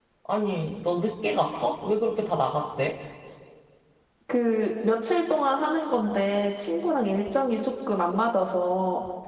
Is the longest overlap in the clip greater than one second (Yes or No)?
No